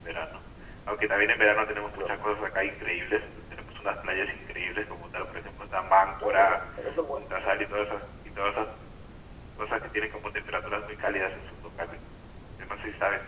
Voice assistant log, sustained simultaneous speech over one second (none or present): none